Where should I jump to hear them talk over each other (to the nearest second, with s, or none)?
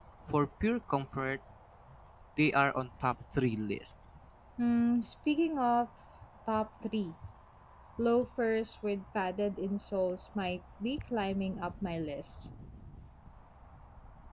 none